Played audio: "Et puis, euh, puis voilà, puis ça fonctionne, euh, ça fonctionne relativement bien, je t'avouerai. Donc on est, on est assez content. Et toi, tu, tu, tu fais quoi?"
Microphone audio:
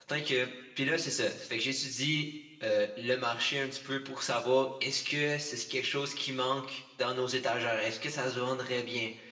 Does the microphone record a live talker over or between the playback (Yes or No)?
Yes